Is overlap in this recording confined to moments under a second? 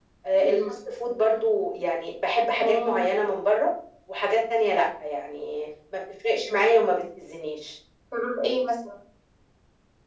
Yes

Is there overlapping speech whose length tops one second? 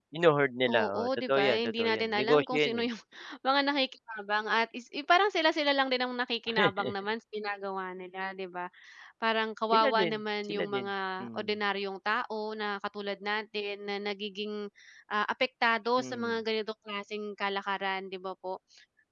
Yes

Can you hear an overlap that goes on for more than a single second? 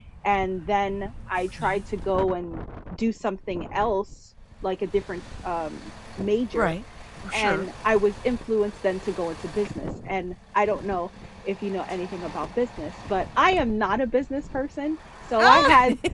No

